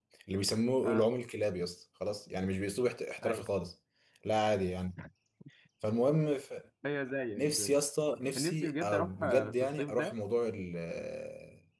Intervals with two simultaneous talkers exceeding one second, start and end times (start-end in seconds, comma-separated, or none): 8.3-10.2